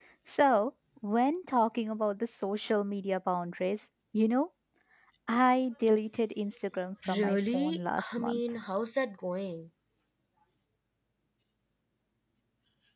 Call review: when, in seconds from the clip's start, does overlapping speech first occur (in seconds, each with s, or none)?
7.0 s